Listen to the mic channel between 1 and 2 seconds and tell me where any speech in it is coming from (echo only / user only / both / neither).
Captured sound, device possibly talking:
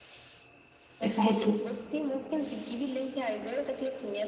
both